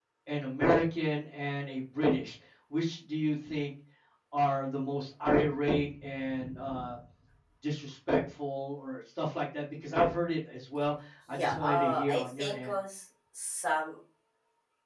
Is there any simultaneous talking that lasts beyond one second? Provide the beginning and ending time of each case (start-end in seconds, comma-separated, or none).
11.3-12.7